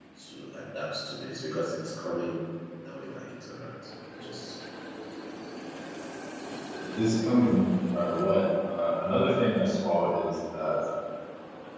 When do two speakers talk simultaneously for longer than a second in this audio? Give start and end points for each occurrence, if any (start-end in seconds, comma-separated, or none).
none